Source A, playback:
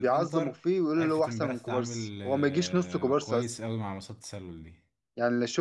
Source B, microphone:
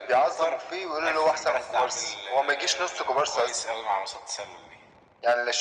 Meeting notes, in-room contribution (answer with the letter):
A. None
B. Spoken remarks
A